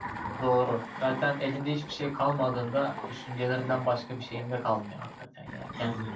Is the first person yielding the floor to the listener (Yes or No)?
No